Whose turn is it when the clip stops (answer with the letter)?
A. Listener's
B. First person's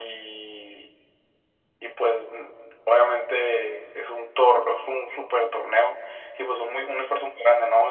B